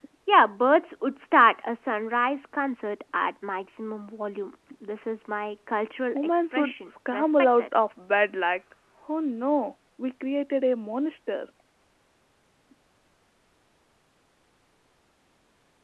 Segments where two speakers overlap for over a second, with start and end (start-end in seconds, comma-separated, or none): 6.1-7.7